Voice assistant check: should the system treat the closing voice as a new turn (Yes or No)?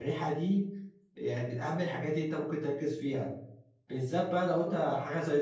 No